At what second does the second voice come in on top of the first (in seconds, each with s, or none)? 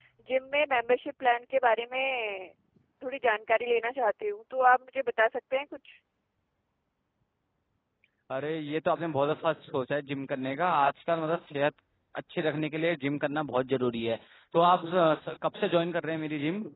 none